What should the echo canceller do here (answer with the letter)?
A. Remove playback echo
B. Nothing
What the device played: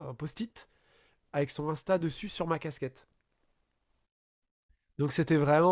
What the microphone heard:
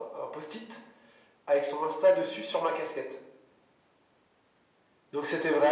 A